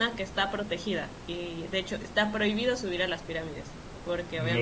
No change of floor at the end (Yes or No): Yes